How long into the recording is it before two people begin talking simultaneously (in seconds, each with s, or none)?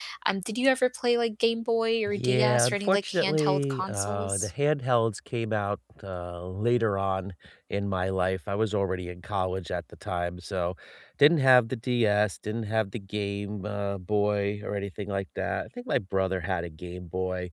2.1 s